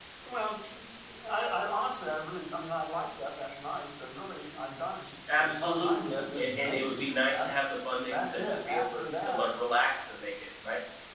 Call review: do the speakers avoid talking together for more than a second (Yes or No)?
No